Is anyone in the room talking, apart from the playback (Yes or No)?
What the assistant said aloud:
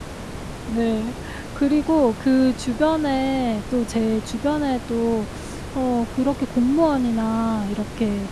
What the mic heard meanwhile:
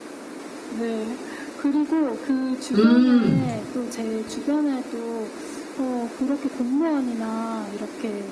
Yes